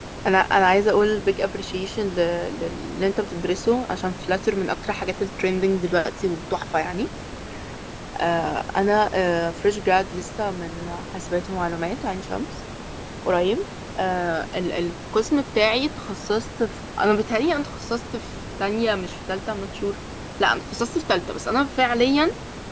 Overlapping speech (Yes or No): No